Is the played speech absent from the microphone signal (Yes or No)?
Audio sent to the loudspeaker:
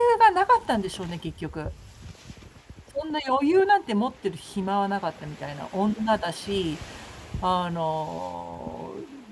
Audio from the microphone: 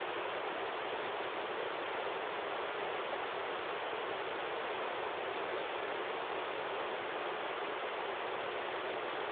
Yes